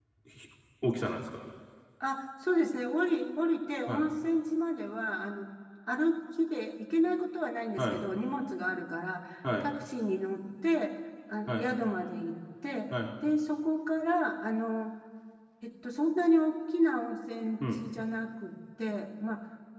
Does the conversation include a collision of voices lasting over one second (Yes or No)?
No